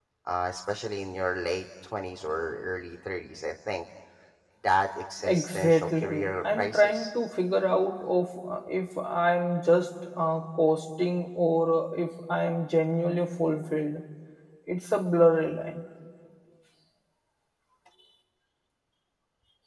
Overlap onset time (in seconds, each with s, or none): 5.2 s